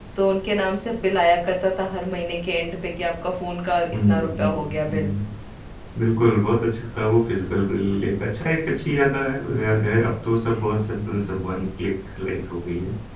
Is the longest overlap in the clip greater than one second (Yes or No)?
Yes